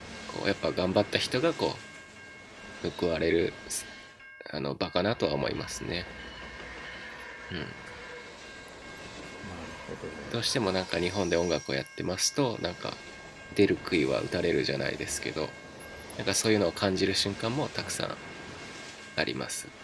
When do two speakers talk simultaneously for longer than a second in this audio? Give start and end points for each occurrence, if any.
none

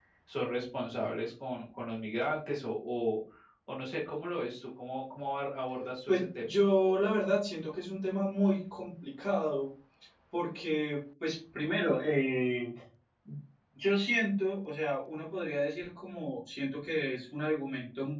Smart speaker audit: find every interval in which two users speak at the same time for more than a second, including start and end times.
none

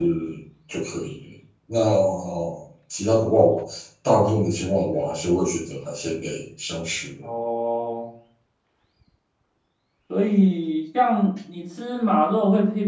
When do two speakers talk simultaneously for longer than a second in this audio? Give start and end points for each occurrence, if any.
none

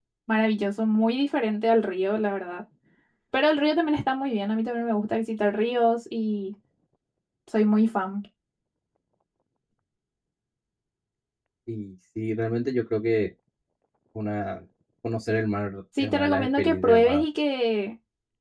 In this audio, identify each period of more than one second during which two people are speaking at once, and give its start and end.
16.0-17.2

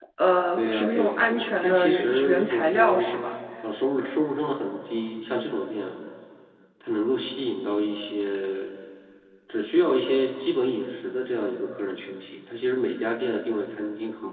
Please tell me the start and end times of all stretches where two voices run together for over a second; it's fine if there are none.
0.6-3.1

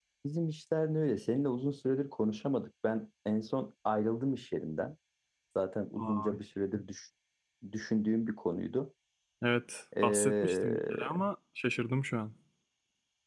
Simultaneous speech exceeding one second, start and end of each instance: 10.0-11.2

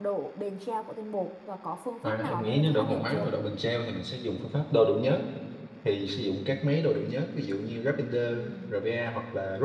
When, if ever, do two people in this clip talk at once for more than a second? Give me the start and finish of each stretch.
2.0-3.3

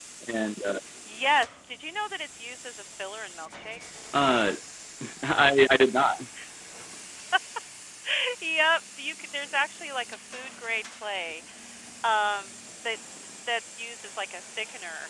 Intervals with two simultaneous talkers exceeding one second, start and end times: none

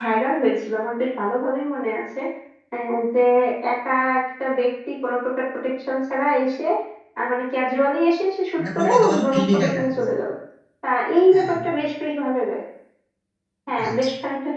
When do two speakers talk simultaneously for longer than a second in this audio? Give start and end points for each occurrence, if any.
8.6-9.8

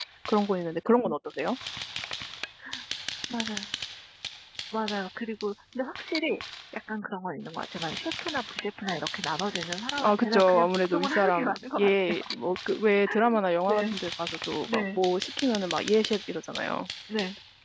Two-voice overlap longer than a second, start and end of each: 10.0-12.2

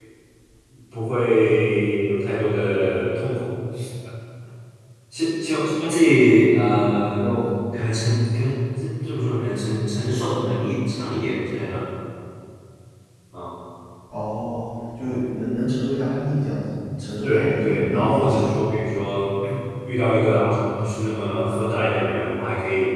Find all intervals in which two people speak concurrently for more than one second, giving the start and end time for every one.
17.2-18.4

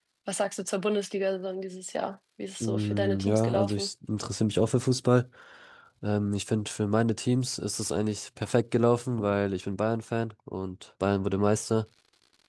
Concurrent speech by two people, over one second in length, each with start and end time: 2.6-3.9

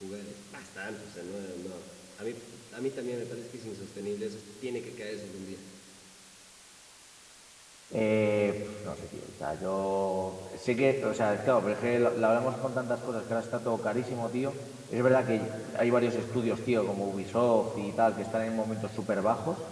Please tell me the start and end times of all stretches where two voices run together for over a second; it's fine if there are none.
none

